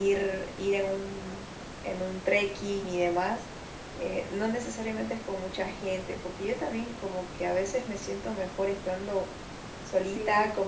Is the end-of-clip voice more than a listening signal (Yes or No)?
No